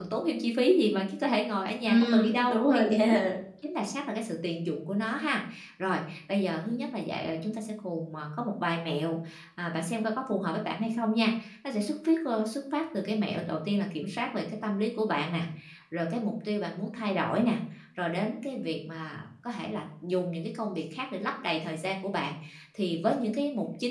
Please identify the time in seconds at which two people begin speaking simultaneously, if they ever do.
1.9 s

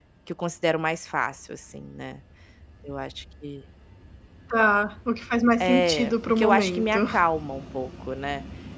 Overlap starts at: 5.6 s

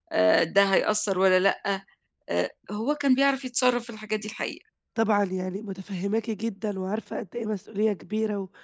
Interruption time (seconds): none

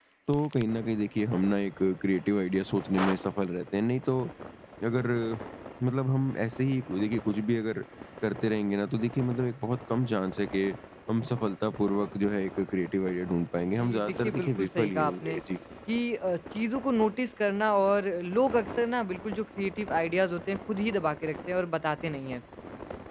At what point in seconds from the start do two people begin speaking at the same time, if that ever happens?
13.8 s

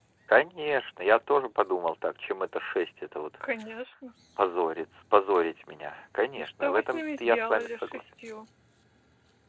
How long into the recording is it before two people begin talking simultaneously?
6.4 s

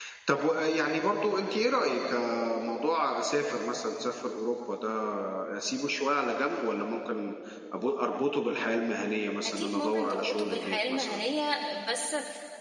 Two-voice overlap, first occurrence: 9.4 s

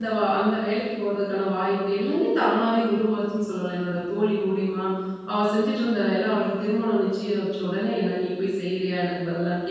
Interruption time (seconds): none

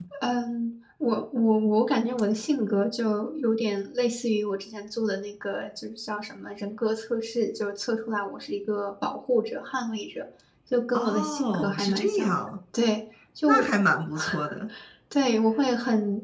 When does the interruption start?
10.9 s

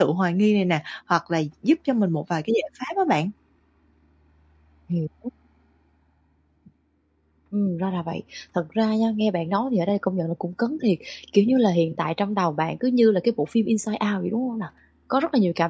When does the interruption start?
none

